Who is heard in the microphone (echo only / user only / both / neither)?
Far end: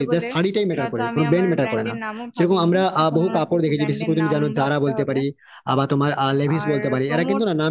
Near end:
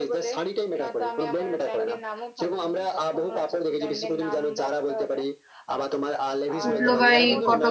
both